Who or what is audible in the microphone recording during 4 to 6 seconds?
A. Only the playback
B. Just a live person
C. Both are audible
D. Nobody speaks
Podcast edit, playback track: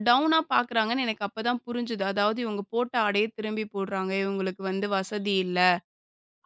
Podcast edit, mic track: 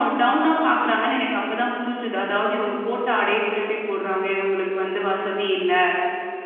A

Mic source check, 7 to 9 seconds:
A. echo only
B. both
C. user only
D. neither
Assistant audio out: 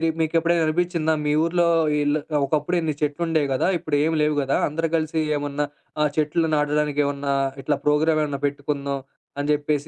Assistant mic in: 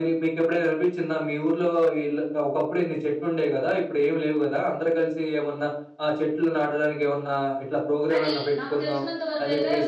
B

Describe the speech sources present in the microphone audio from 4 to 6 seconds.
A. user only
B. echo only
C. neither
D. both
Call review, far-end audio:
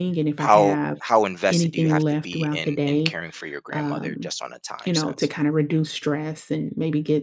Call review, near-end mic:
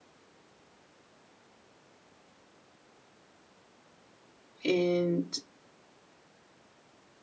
A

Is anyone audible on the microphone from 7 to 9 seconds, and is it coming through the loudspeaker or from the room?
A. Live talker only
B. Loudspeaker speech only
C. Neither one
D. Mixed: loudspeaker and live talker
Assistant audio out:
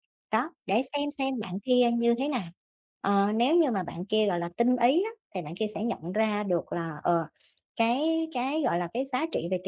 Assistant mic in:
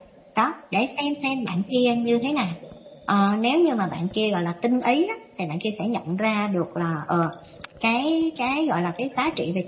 B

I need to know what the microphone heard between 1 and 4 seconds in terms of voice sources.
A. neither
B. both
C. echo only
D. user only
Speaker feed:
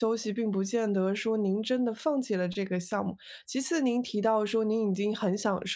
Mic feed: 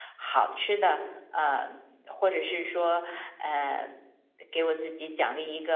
D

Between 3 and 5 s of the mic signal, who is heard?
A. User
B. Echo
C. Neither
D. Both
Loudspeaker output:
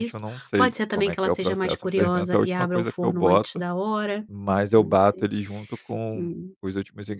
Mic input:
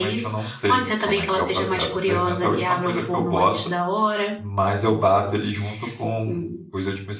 B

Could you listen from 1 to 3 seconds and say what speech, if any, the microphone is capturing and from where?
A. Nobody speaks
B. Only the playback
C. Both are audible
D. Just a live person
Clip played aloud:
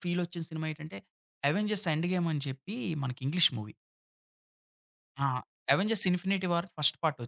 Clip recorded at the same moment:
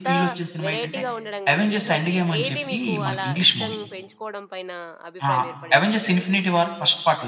C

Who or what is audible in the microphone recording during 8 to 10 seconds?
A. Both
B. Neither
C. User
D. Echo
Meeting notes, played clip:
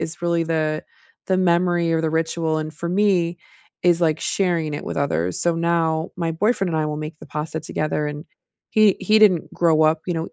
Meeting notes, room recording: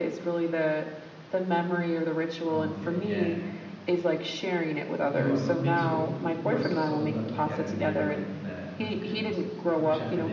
A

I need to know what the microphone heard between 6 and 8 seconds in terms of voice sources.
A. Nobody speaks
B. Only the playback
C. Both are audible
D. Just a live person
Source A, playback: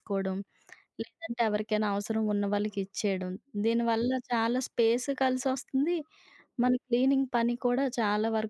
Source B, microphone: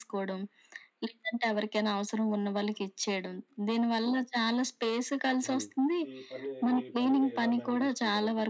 C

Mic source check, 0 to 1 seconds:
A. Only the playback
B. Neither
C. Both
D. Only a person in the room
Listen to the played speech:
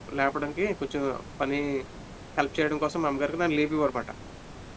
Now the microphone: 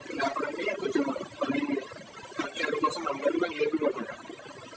A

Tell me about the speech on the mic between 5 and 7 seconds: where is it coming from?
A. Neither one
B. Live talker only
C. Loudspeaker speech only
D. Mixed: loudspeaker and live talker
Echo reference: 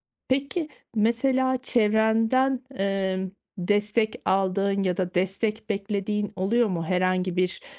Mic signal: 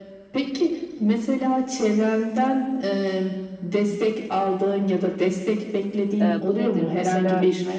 D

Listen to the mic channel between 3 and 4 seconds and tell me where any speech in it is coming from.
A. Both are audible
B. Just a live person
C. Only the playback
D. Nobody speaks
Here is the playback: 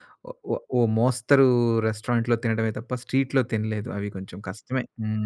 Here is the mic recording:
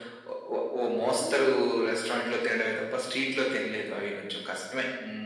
C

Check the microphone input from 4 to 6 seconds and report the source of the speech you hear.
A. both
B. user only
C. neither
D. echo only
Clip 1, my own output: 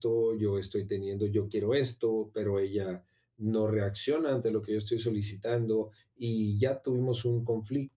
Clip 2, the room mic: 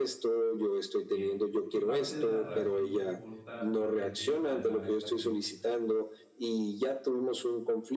A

